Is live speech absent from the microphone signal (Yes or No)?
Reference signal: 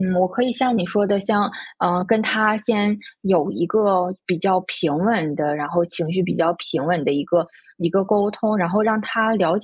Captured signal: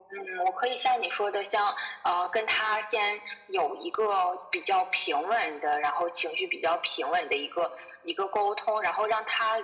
Yes